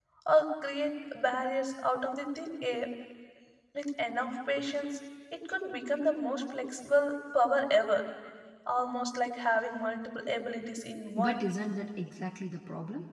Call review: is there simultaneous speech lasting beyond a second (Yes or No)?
No